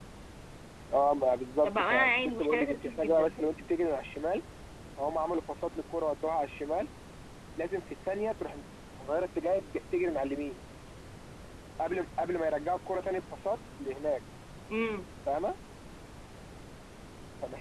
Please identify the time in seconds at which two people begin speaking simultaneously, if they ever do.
1.6 s

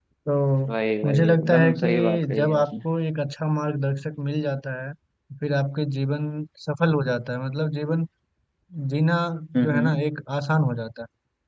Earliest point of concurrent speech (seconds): 1.0 s

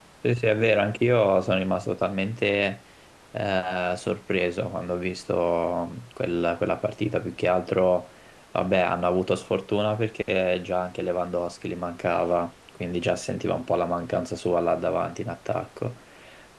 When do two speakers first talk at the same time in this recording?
none

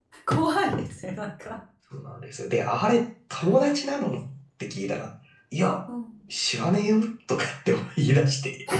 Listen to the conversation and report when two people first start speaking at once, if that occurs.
none

